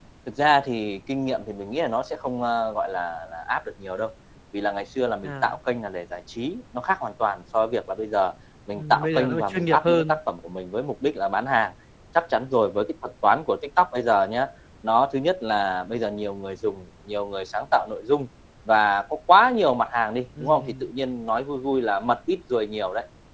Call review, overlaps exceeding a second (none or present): present